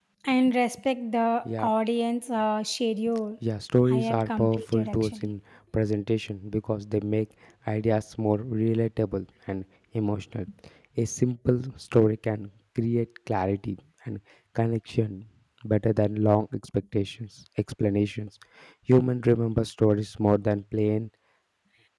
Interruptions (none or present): present